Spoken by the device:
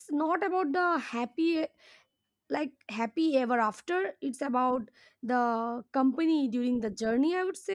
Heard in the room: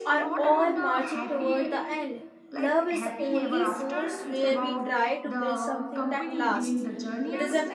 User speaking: Yes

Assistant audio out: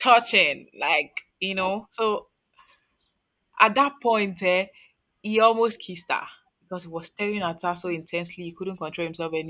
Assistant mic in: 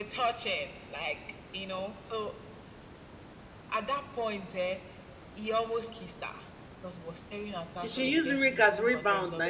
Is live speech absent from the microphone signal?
No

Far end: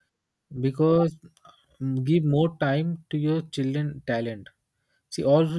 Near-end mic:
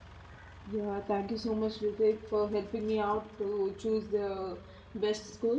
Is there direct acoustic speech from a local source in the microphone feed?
Yes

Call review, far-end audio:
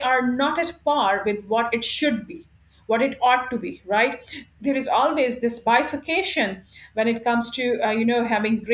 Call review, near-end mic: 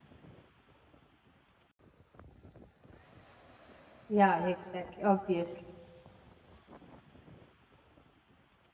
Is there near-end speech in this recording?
Yes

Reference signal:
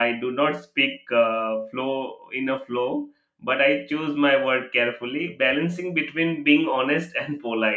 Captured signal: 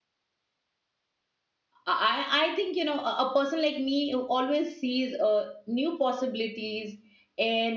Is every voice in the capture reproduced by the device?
No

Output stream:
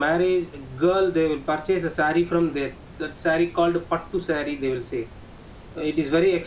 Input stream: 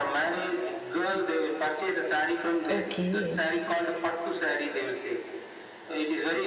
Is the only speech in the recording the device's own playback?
No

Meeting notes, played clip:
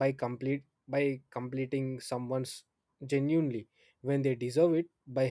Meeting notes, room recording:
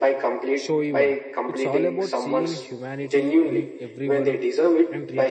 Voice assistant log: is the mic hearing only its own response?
No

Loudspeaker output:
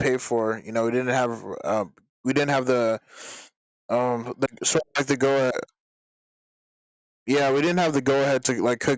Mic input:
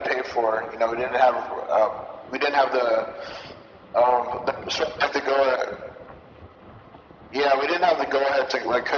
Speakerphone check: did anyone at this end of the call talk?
No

